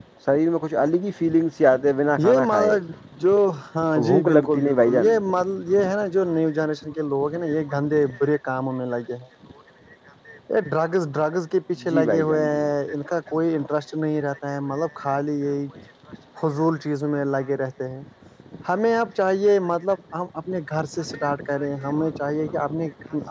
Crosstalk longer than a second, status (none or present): present